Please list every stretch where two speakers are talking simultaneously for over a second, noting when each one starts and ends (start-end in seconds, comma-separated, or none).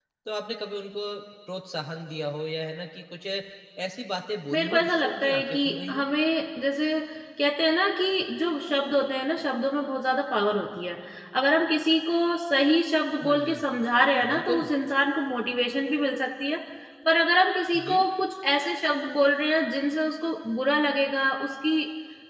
4.5-6.0